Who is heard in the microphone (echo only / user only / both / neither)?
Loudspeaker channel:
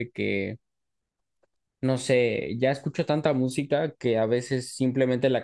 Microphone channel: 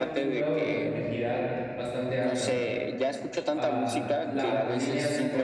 both